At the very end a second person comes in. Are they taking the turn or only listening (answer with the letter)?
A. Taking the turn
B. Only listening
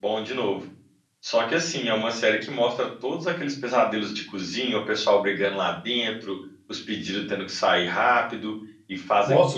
A